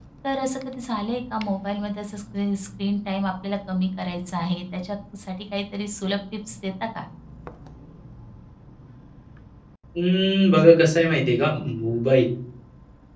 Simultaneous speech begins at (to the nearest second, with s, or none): none